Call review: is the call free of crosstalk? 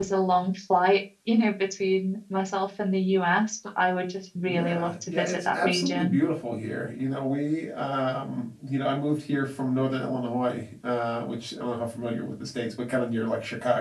No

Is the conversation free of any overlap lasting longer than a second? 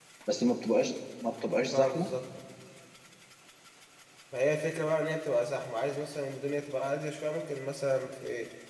Yes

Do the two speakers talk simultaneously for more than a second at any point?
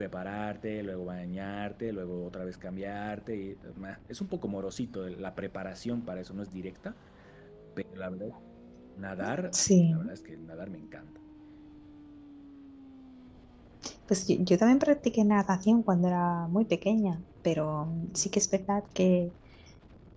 No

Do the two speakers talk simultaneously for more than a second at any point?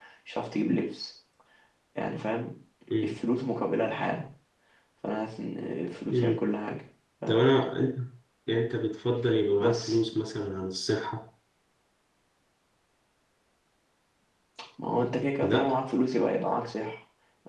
No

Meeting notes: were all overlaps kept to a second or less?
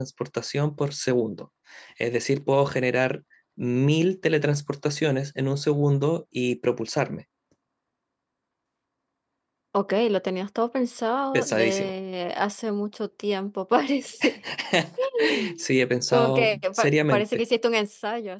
No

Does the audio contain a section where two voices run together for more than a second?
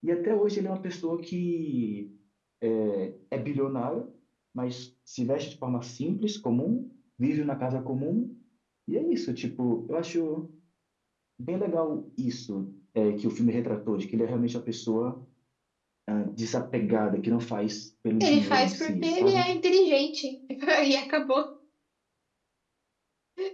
Yes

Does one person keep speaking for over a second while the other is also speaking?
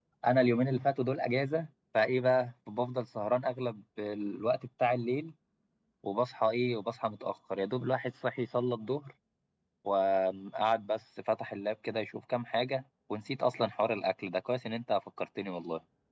No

